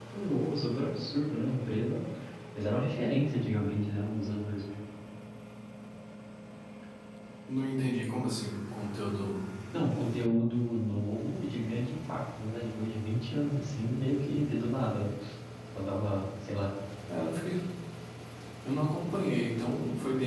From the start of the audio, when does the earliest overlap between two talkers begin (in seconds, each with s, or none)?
none